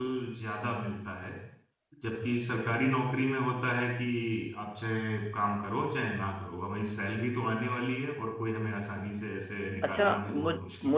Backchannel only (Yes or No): No